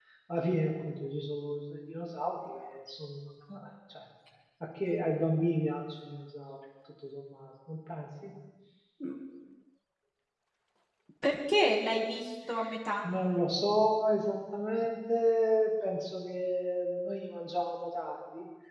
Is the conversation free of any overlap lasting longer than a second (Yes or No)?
Yes